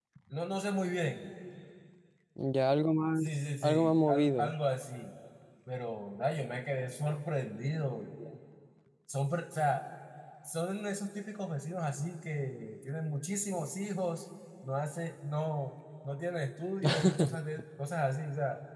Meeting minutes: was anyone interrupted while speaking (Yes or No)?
Yes